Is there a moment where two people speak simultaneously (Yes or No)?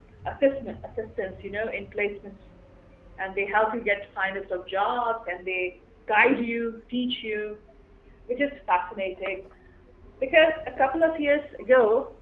No